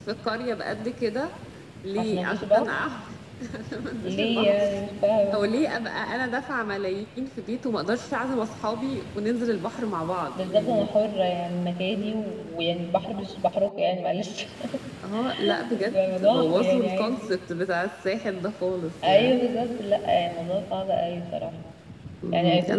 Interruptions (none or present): present